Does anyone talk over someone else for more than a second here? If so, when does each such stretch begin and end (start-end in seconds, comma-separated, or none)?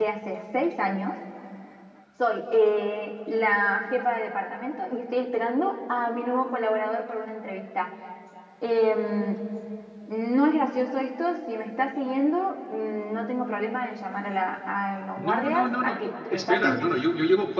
15.3-16.8